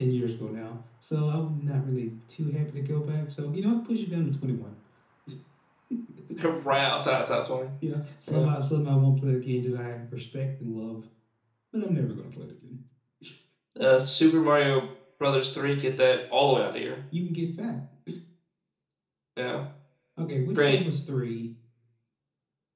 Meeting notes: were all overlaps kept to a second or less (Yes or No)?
Yes